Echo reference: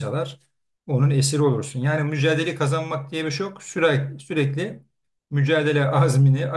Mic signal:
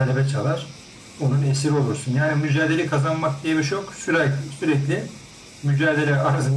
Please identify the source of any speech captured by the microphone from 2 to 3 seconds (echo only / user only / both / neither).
echo only